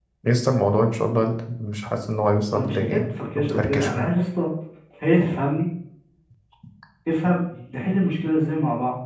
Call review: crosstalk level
present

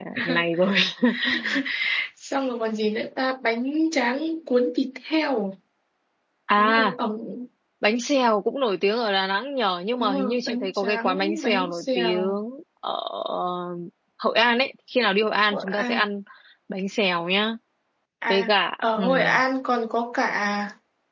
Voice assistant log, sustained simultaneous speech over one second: present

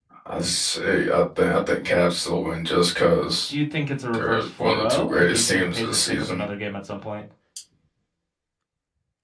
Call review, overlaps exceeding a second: present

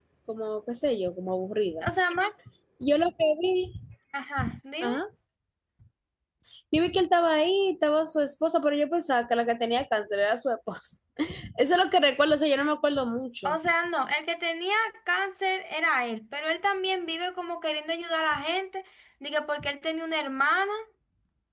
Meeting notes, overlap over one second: none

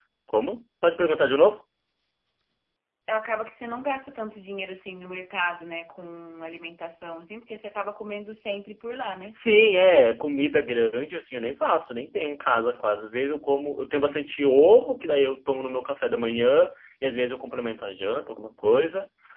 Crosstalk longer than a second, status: none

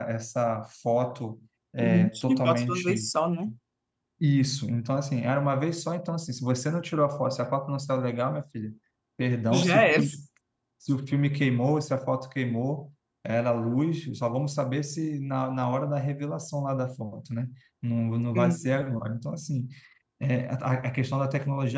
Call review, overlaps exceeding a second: present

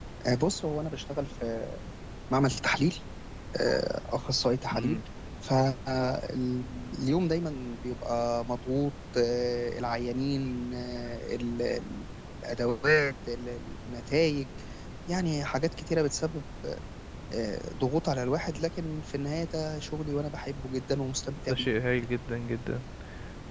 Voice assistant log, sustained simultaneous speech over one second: none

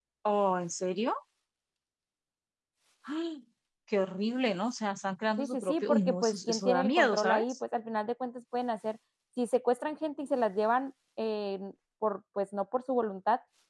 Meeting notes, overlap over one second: present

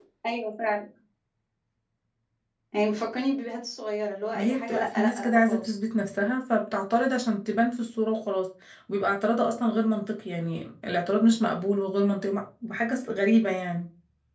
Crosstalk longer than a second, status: present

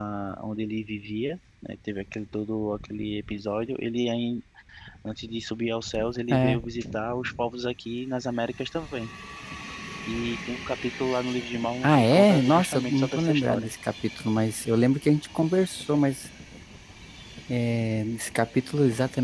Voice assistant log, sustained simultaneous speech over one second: present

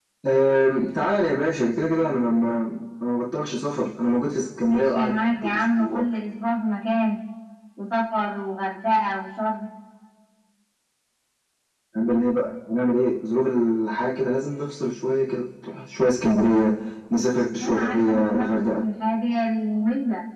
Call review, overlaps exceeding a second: present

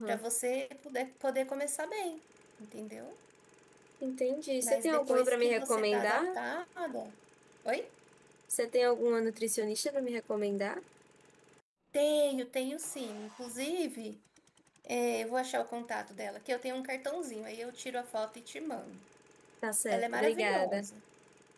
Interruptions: present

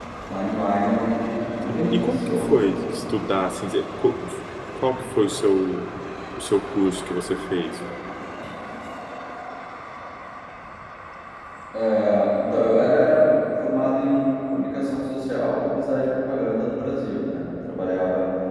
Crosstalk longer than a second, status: present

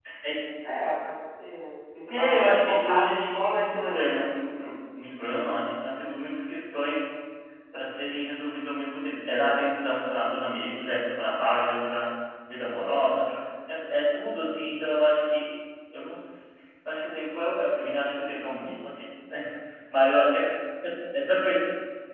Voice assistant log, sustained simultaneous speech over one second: present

